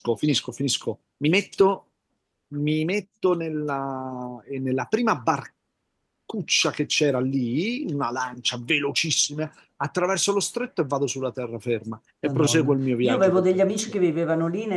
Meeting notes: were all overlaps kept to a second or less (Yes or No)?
No